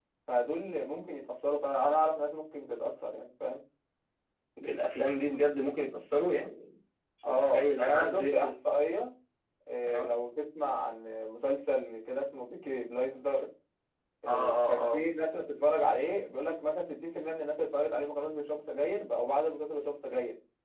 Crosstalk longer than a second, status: present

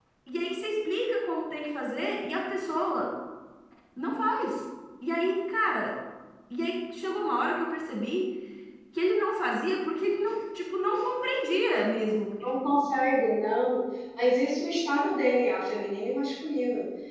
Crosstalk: none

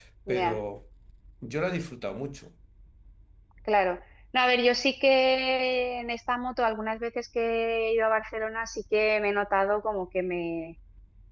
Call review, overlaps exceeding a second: none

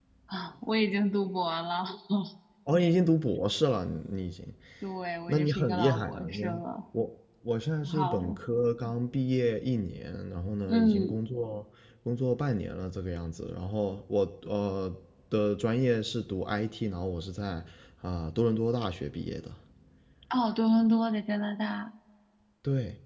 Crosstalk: present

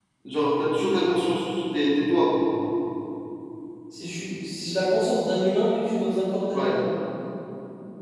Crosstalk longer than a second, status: none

